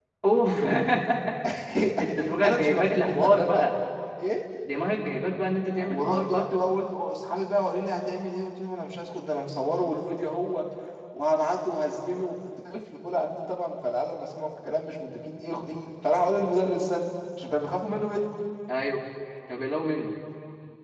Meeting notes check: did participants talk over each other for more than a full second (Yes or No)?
Yes